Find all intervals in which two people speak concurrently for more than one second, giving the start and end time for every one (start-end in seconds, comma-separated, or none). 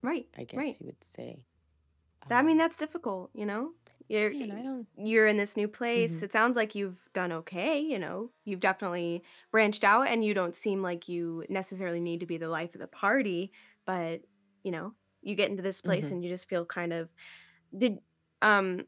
none